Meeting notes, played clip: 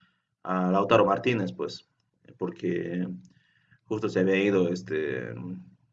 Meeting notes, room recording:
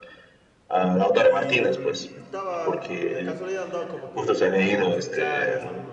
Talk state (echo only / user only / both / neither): both